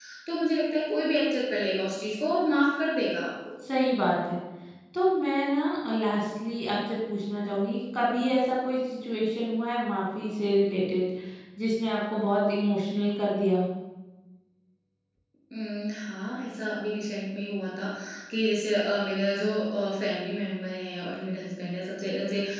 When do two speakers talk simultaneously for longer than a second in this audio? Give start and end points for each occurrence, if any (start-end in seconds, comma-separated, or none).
none